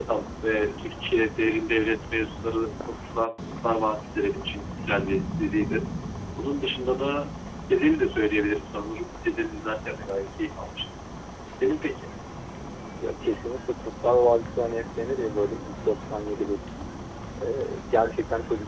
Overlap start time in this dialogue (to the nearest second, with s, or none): none